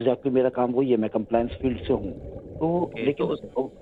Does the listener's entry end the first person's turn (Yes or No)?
Yes